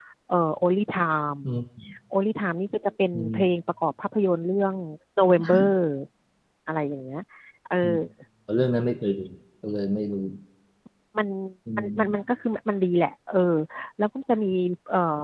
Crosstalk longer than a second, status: none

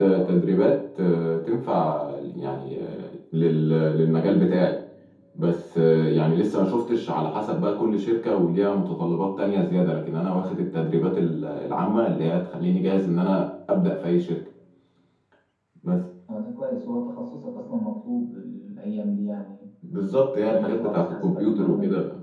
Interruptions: present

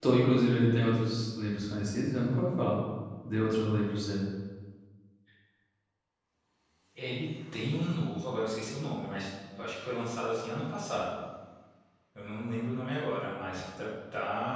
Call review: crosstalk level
none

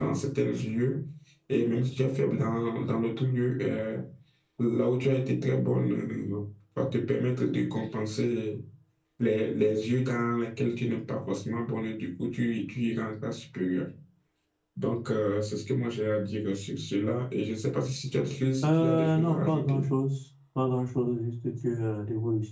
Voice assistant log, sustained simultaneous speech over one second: present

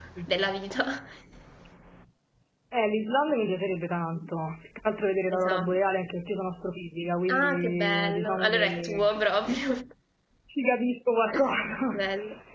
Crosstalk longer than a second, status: present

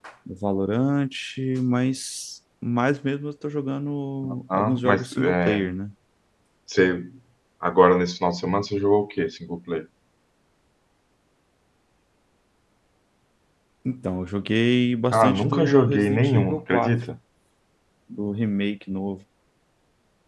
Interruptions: present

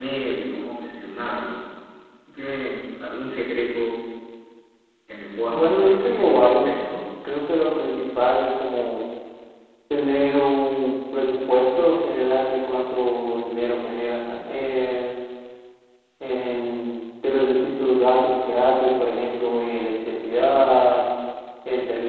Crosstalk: present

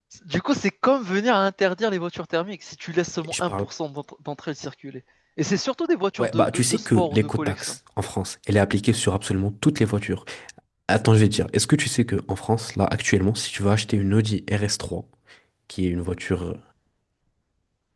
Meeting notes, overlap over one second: present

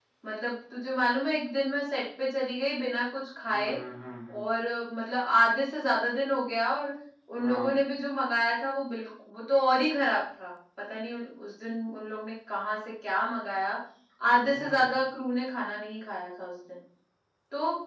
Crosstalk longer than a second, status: none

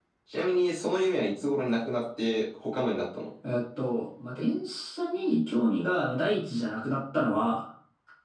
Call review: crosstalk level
none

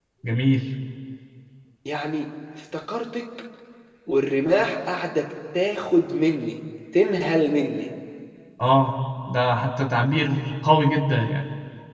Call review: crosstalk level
none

